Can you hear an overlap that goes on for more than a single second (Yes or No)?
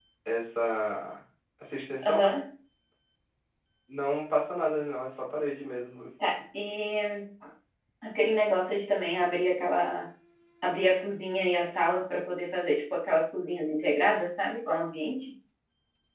No